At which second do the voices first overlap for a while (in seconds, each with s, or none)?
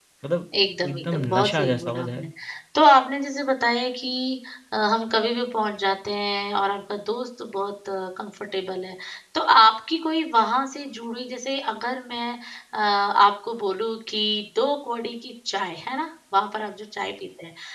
0.9 s